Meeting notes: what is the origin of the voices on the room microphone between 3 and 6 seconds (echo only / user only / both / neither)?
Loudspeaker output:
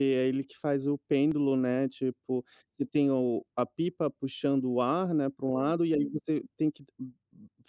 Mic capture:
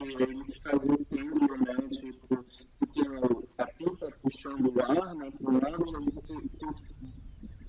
echo only